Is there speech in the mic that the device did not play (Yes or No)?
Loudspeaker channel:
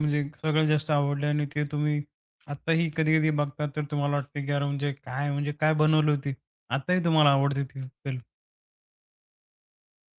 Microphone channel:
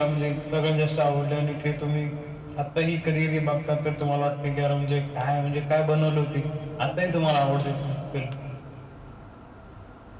No